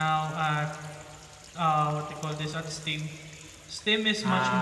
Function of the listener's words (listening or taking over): listening